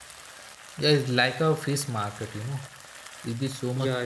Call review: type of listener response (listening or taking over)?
listening